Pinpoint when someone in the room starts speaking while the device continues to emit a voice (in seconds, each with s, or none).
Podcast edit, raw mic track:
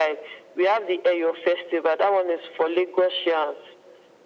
none